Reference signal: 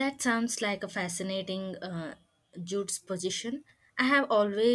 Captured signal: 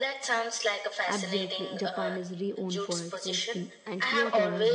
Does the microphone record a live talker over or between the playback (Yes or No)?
Yes